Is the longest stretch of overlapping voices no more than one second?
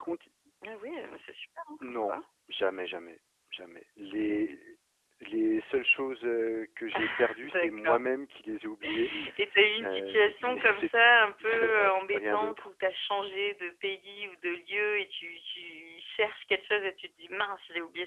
No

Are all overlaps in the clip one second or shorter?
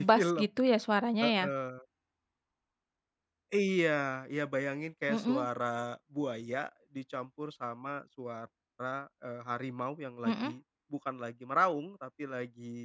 Yes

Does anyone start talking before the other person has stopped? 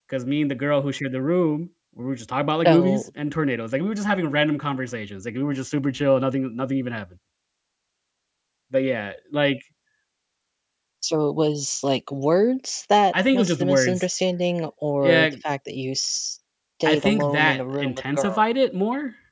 Yes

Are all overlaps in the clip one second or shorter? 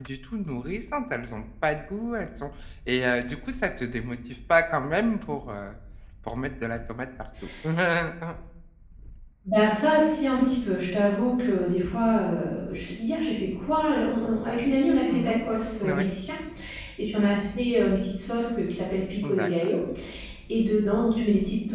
Yes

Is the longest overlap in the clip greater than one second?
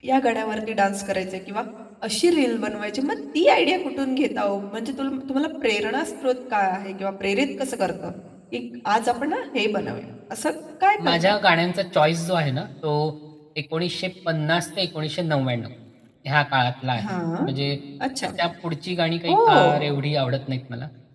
No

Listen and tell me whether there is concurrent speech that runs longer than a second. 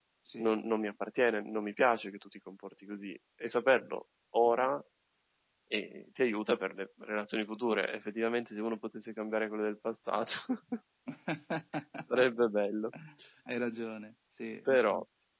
No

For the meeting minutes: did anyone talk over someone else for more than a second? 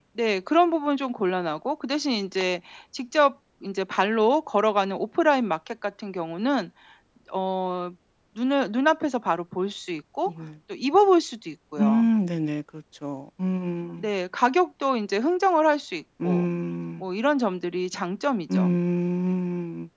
No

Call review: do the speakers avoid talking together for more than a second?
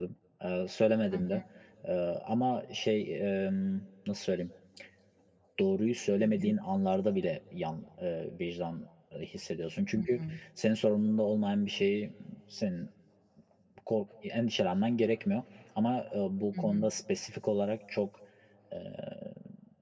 Yes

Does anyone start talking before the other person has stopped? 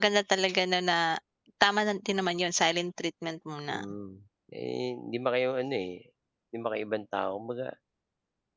No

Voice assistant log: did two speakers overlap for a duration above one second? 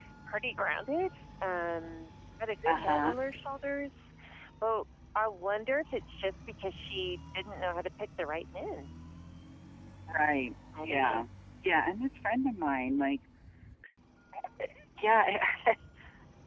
No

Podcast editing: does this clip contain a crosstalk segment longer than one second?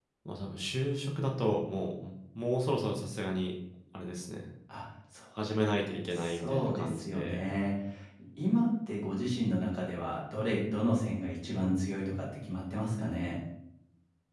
Yes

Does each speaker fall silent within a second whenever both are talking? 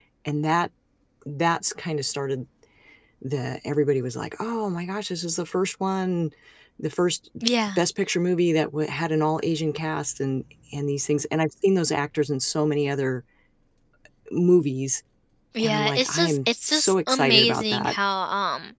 No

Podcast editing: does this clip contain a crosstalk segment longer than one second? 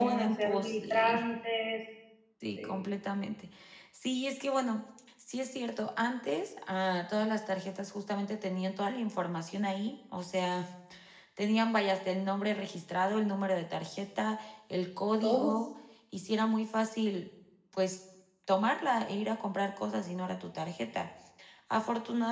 Yes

